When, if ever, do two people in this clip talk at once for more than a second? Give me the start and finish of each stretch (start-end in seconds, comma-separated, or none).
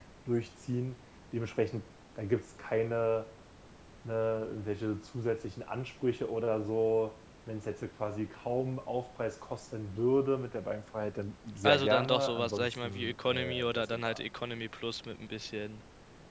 11.6-14.2